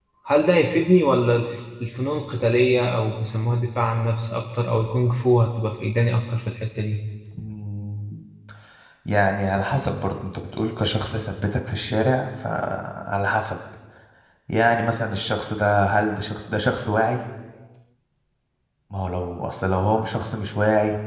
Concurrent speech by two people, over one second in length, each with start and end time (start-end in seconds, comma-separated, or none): none